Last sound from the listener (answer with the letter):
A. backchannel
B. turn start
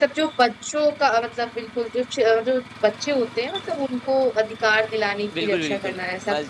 B